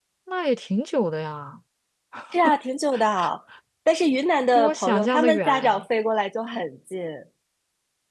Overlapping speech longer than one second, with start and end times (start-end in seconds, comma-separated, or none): 4.5-5.8